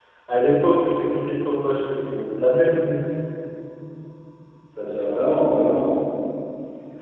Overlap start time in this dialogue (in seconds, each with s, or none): none